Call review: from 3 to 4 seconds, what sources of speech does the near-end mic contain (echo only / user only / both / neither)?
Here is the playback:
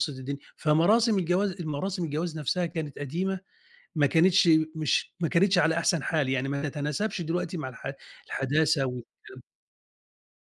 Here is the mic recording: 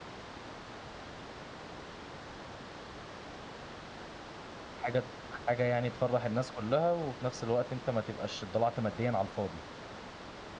neither